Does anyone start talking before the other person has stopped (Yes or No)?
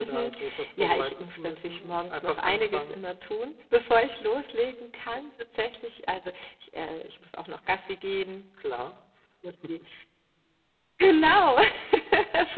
Yes